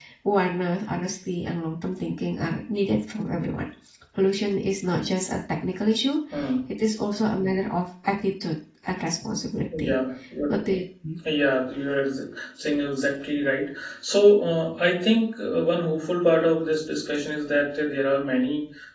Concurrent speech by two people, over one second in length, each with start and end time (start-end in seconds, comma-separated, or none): none